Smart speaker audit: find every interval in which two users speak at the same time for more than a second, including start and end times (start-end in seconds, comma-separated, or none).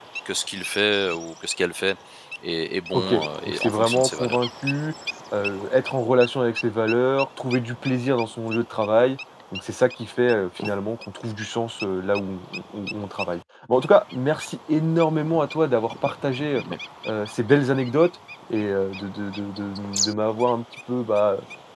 2.9-4.4